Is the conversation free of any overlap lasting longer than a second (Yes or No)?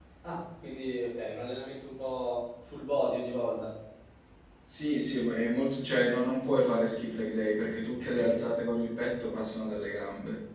Yes